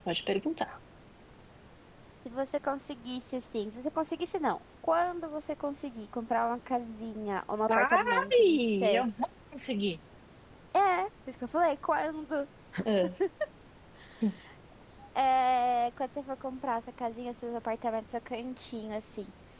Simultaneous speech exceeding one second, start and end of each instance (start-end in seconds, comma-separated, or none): 7.8-9.0